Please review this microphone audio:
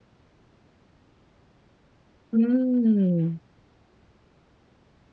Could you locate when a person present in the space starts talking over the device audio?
2.3 s

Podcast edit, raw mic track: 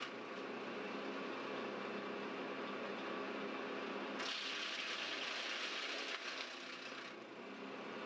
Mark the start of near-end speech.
none

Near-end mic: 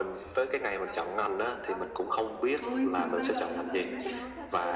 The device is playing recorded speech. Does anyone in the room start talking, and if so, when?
2.6 s

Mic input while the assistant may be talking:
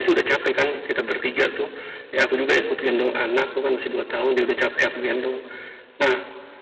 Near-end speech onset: none

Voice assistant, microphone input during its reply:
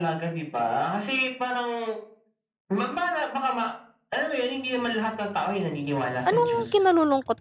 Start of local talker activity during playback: 6.3 s

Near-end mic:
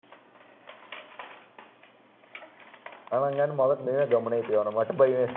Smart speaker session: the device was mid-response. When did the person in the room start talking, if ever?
3.2 s

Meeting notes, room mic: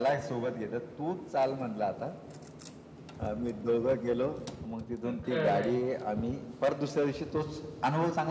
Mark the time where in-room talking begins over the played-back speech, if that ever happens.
5.0 s

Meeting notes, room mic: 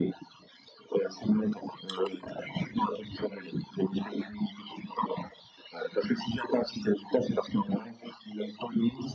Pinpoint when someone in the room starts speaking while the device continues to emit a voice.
none

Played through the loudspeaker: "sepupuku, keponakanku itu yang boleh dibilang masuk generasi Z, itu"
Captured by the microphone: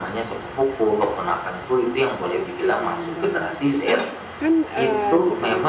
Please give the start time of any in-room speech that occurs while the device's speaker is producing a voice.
2.3 s

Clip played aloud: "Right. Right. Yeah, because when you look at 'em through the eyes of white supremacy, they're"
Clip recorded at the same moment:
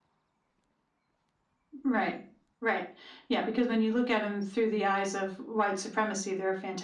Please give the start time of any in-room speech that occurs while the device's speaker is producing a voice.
none

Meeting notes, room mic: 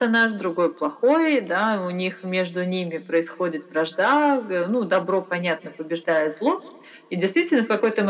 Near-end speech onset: none

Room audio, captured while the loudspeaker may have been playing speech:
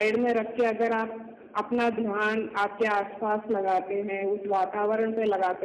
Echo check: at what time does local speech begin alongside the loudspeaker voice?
none

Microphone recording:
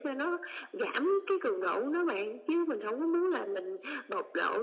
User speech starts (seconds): none

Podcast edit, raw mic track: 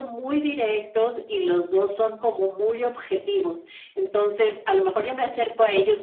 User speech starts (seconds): none

